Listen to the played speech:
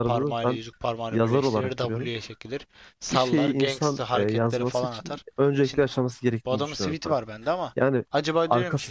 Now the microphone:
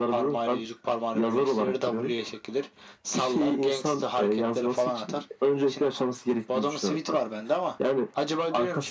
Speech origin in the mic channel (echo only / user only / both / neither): echo only